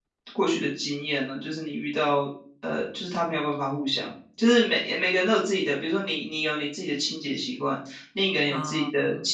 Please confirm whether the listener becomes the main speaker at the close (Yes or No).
No